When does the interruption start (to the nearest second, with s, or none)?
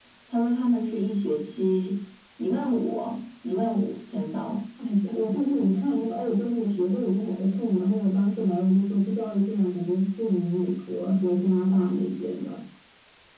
none